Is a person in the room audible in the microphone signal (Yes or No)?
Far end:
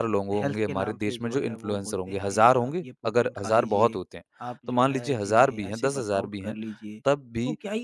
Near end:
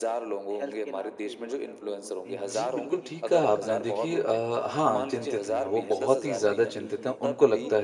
Yes